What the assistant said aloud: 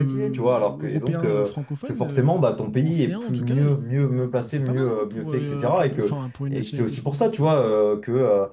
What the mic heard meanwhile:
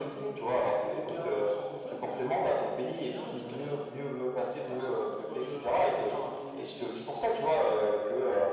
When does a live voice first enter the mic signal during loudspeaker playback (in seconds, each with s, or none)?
none